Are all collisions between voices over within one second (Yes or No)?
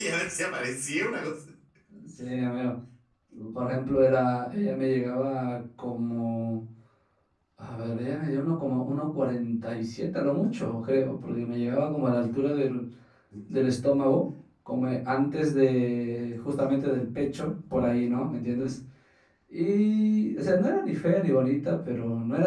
Yes